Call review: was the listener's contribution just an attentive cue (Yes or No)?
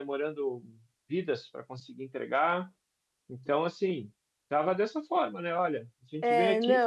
Yes